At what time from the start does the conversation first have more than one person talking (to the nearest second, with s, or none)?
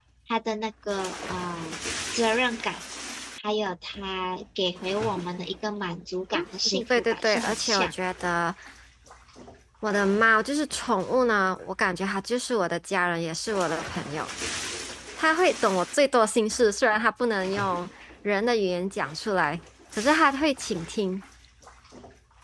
7 s